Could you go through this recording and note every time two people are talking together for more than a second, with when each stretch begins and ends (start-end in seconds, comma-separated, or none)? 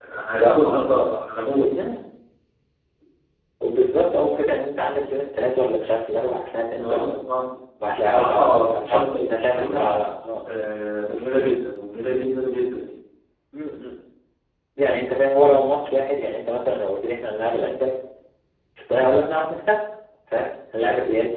8.0-9.8